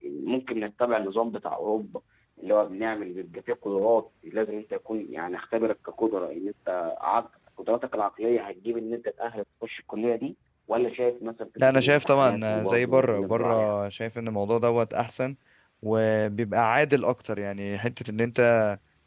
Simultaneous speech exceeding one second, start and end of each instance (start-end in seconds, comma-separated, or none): 11.7-13.7